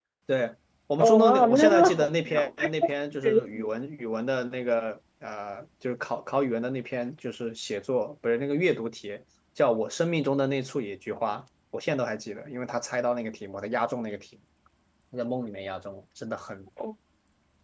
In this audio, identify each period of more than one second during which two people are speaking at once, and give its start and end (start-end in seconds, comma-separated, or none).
1.0-2.9